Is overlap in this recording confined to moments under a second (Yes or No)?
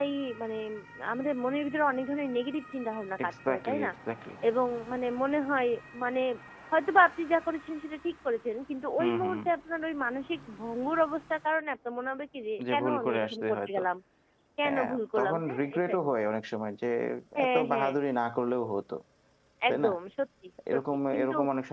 No